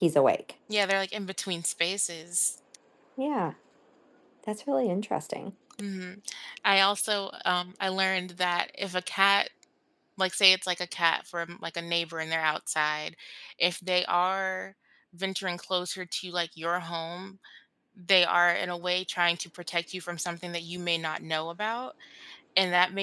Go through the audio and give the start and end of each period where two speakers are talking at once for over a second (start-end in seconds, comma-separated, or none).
none